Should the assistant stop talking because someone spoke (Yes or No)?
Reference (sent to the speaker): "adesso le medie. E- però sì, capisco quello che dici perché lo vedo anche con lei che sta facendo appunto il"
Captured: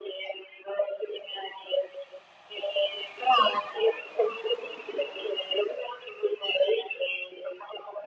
No